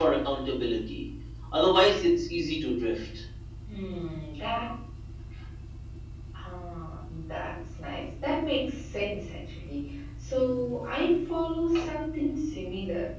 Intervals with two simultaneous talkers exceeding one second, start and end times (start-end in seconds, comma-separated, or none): none